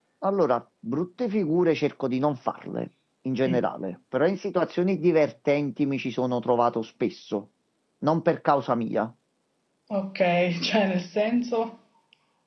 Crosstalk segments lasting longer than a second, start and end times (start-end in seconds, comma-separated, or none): none